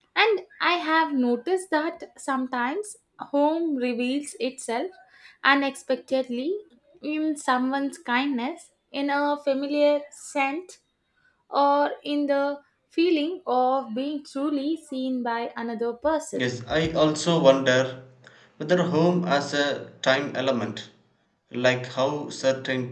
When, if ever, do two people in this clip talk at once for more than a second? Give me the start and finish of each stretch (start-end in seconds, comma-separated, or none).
none